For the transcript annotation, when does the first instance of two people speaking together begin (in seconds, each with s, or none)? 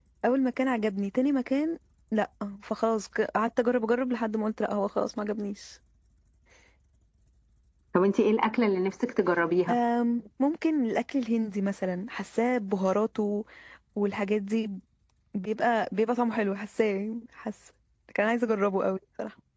none